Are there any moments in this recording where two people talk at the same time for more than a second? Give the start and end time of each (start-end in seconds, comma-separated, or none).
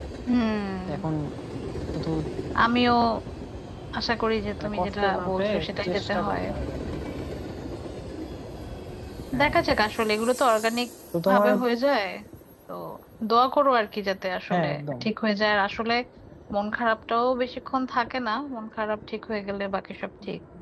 4.6-6.4